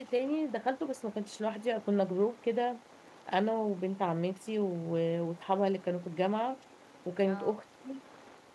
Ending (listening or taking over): listening